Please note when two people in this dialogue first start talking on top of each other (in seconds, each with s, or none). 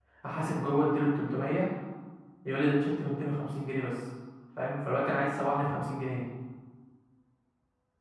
none